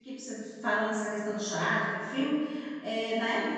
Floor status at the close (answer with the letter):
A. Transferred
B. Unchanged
B